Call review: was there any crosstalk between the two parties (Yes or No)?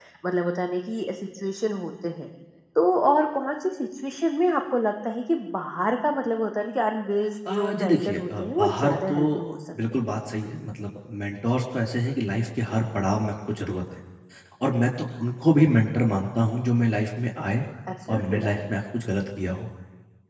Yes